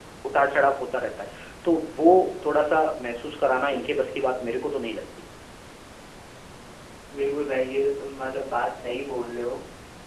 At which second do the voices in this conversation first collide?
none

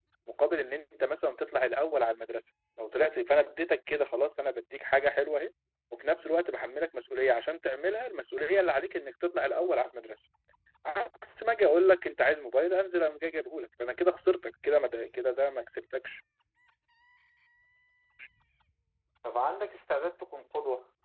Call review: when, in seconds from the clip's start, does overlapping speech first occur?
none

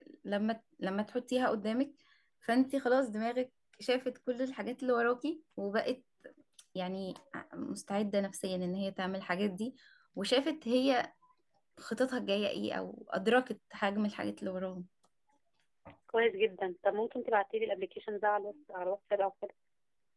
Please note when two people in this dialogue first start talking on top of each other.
none

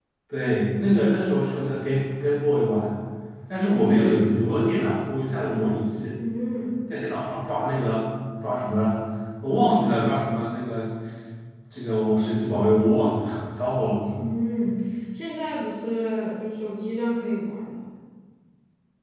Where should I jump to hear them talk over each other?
none

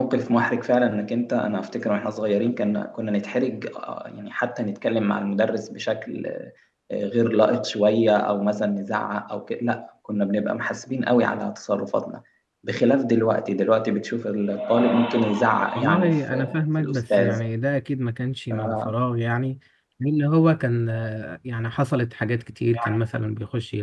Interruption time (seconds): 15.8 s

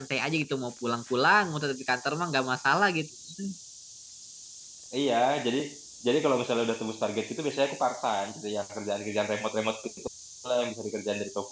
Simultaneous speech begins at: none

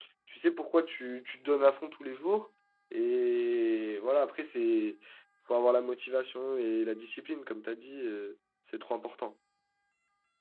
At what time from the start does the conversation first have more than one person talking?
none

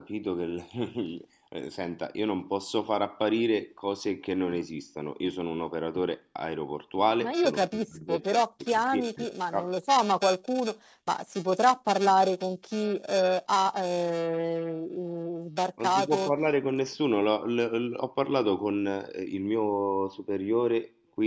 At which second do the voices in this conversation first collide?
7.2 s

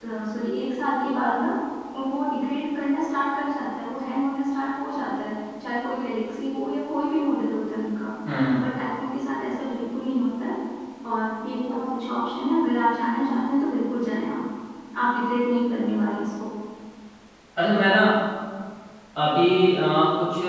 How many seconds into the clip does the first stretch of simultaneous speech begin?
none

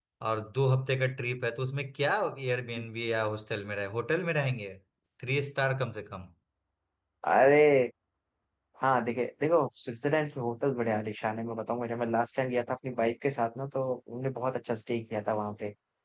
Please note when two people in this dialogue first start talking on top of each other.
none

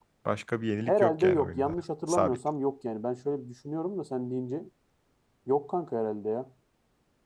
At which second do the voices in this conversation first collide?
0.9 s

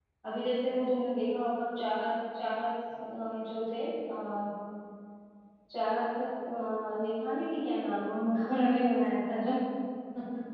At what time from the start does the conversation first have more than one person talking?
none

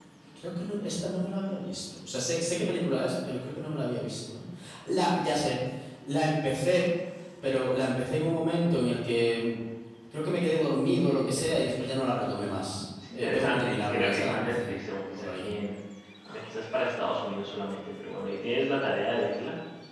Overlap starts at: 13.1 s

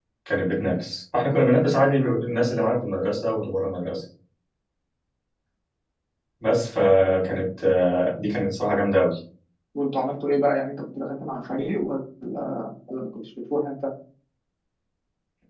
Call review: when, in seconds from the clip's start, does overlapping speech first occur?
none

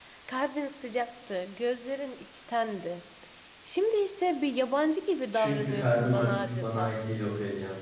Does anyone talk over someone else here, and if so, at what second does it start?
5.3 s

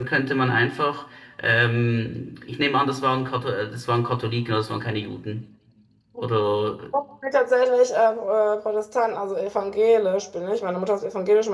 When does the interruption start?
none

